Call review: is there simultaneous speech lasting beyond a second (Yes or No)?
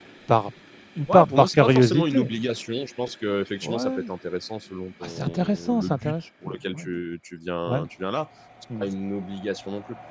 Yes